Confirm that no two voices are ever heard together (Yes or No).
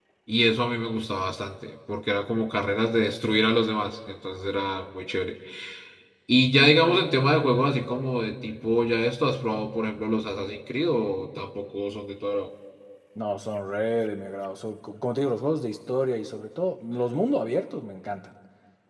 Yes